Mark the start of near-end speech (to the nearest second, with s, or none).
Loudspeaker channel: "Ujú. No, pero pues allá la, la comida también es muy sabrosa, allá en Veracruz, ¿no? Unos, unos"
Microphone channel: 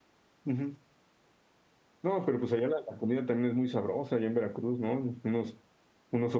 none